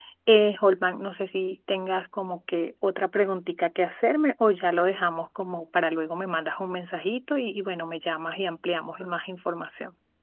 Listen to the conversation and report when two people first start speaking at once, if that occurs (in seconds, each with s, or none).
none